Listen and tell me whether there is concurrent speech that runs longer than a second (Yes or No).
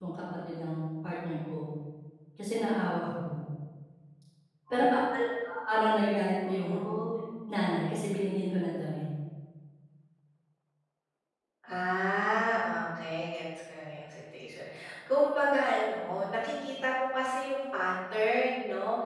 No